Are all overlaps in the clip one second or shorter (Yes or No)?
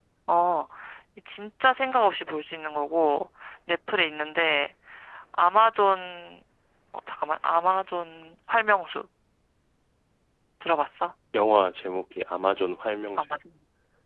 Yes